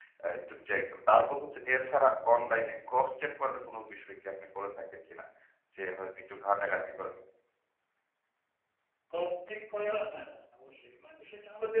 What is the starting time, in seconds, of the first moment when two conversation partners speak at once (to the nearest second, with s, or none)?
none